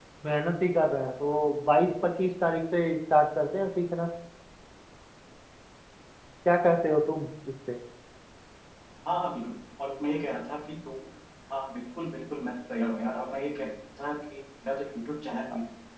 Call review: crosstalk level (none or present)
none